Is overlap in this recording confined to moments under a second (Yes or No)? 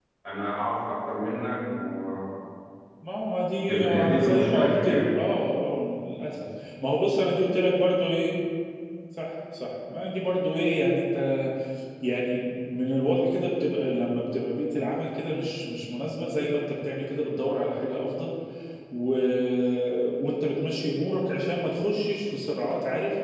No